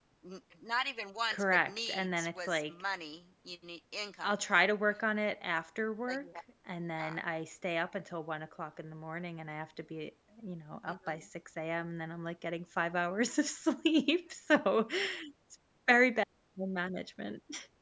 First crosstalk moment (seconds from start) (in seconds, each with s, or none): 1.3 s